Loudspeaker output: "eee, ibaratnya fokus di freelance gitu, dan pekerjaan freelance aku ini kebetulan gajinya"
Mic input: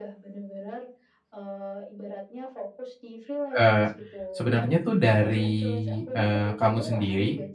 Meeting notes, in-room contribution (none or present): present